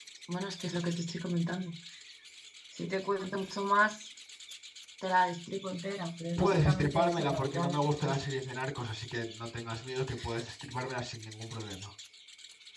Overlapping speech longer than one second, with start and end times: 6.4-8.2

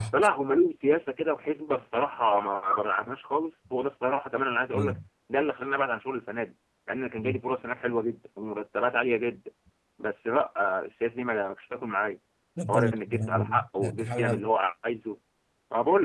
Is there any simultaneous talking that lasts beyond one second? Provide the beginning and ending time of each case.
12.7-14.4

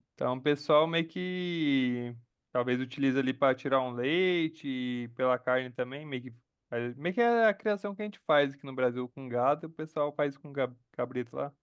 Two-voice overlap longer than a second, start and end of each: none

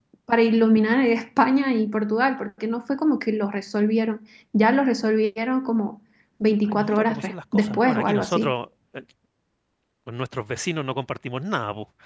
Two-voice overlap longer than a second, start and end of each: 6.6-8.5

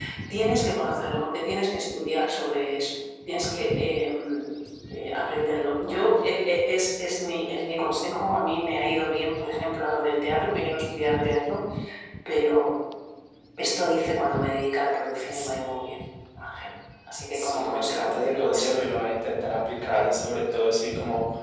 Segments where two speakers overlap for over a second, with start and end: 17.3-18.8

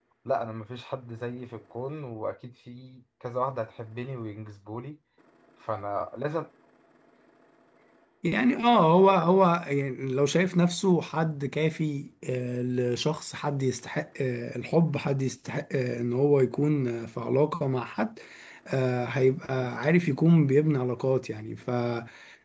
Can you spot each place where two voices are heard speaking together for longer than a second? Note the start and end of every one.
none

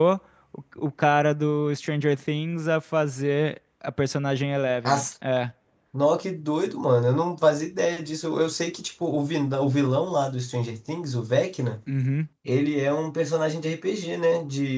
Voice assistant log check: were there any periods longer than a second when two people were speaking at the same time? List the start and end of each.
none

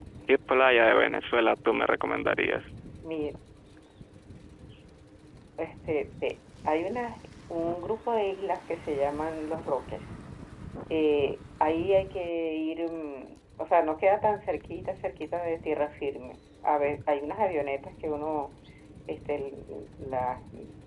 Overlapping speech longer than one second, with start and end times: none

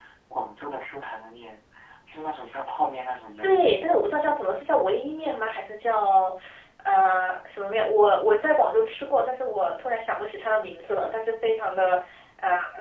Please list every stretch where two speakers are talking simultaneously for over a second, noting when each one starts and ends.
none

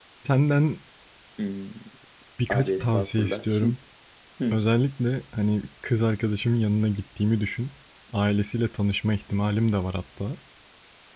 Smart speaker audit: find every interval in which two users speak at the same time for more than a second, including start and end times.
2.5-3.7

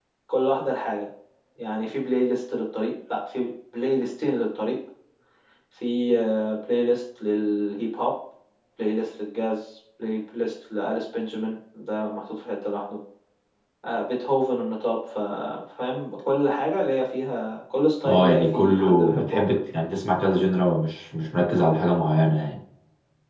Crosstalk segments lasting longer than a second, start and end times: 18.0-19.5

